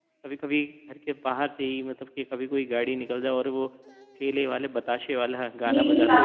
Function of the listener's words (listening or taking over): taking over